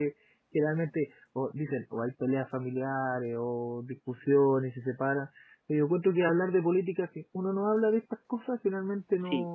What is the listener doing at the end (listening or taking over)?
listening